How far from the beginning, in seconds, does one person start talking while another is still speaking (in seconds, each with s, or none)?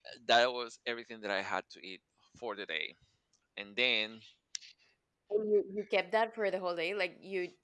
none